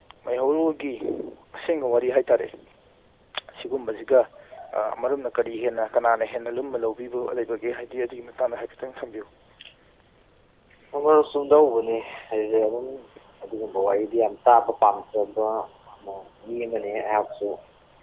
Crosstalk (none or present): none